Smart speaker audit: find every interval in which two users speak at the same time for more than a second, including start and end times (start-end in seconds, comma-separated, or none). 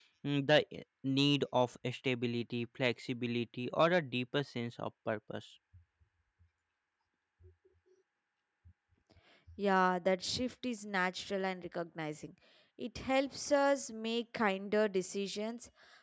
none